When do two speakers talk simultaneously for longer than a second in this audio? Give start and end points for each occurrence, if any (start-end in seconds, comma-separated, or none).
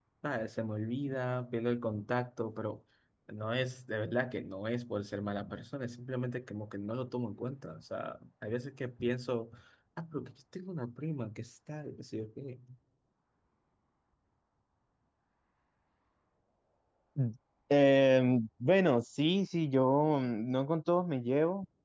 none